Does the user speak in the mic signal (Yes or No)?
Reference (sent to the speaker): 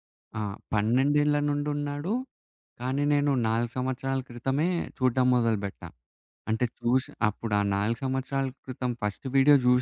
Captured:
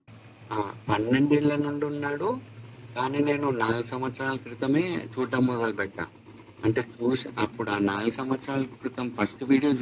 No